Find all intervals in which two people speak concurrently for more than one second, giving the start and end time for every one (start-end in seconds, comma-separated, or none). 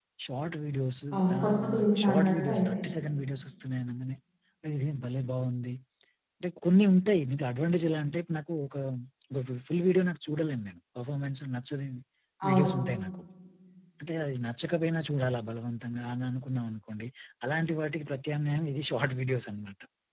1.1-2.9